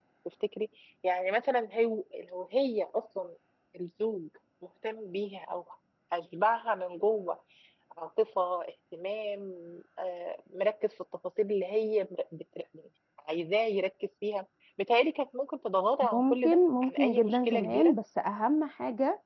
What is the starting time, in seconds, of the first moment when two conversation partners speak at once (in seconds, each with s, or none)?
16.0 s